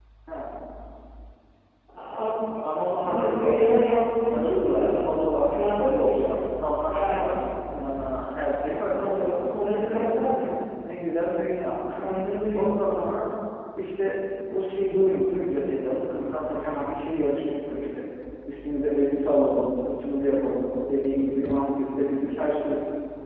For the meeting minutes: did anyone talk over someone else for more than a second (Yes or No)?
Yes